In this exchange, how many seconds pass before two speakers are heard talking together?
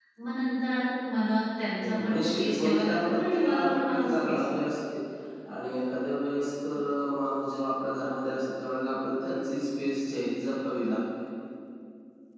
1.8 s

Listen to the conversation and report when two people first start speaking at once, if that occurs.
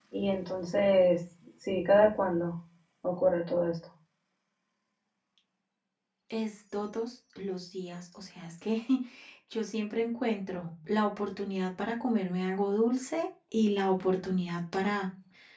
none

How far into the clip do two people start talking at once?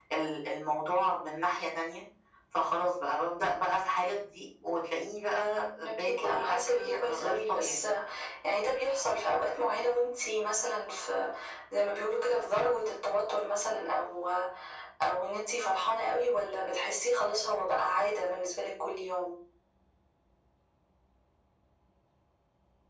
5.8 s

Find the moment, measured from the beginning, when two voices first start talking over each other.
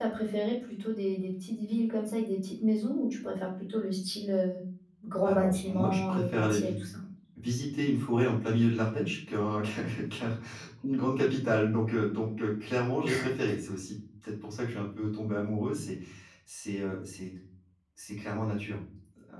5.2 s

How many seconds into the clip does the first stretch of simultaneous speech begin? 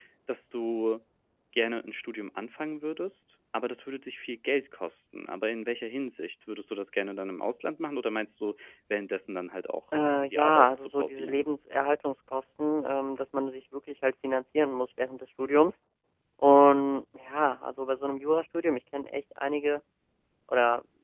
10.2 s

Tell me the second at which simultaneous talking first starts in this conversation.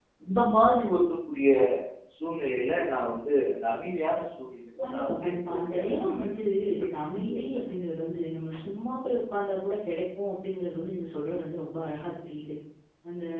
4.8 s

